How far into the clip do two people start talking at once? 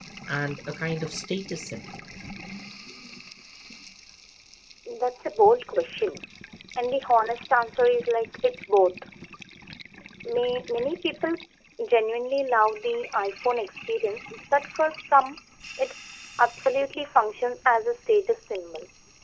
none

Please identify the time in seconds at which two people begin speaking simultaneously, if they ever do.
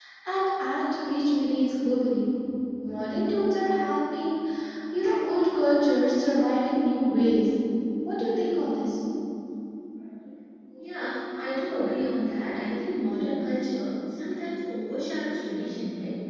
none

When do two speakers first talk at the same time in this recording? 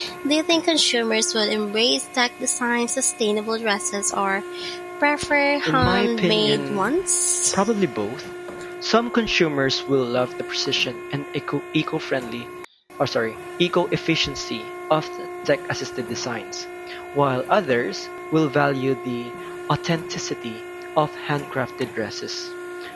5.7 s

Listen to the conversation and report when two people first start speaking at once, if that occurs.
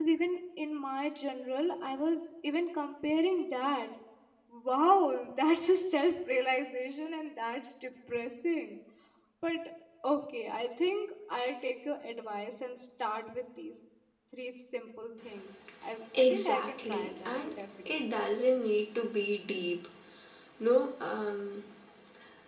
16.1 s

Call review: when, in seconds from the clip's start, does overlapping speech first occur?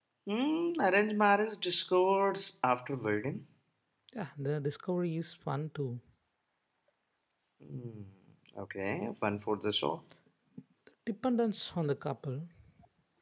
none

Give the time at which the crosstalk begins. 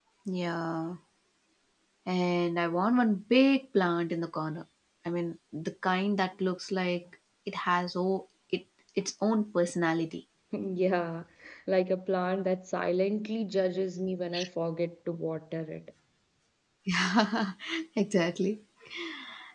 none

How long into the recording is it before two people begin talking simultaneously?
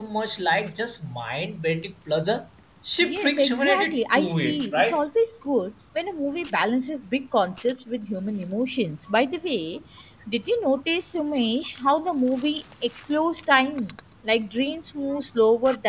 3.0 s

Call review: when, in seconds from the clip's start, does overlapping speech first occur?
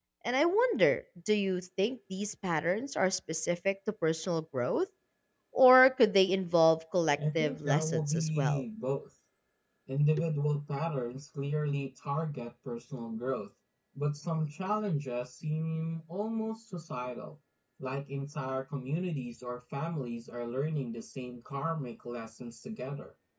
7.2 s

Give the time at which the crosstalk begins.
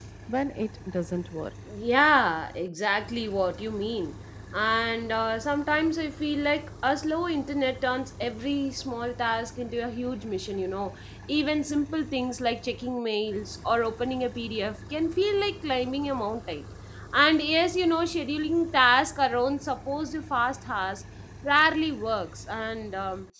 none

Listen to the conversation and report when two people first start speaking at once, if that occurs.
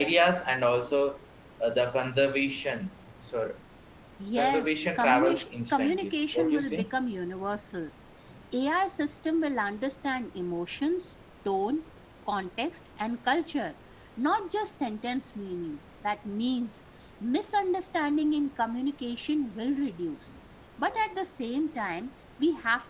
4.4 s

